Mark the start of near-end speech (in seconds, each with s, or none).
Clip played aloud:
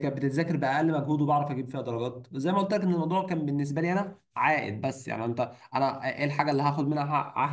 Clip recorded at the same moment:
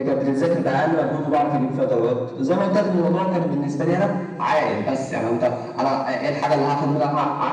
none